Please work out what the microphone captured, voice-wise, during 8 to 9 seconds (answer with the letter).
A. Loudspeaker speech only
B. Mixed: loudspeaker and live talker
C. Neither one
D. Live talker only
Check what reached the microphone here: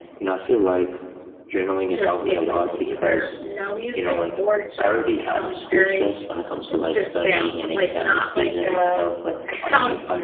B